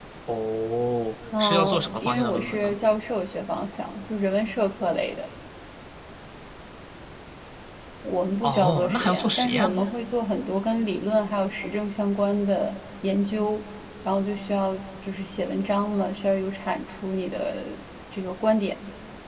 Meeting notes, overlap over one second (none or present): present